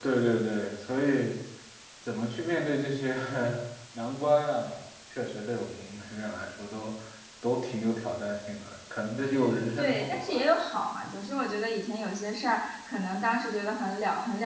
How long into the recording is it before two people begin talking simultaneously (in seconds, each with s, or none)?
9.2 s